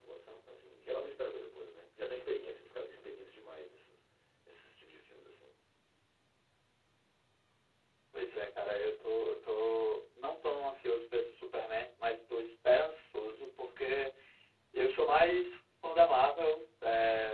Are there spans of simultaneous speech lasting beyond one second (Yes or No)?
No